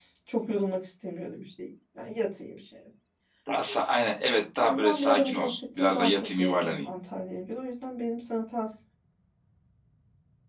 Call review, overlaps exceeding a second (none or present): present